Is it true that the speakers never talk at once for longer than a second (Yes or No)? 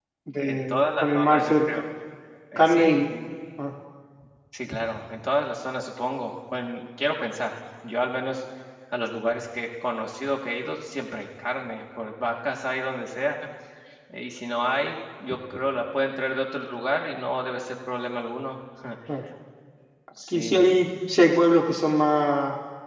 No